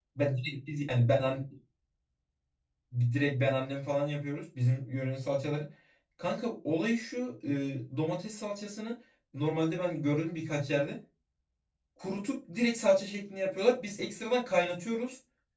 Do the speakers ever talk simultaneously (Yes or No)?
No